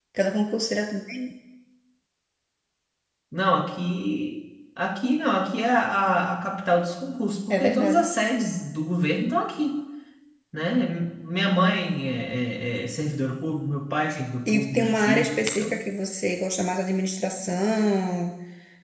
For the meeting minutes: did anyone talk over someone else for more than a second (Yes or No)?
Yes